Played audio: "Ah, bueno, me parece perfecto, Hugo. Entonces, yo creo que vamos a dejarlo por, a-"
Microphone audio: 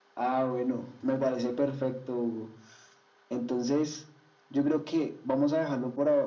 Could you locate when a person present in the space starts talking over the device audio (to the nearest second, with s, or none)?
none